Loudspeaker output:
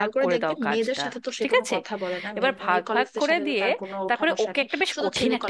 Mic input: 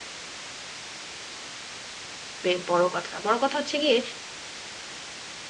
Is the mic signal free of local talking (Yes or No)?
No